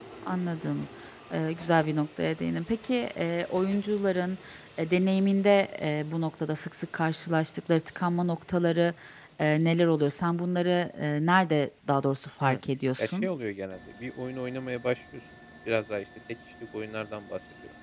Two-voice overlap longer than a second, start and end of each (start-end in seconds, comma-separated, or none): none